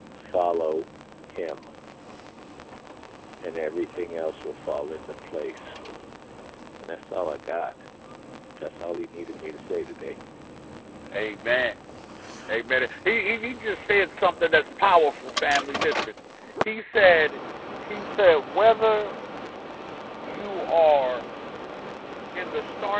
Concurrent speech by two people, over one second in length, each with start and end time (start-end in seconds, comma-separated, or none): none